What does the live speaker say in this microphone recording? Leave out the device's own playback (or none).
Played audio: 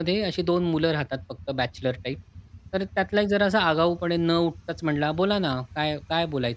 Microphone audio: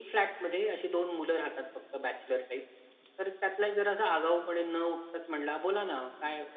none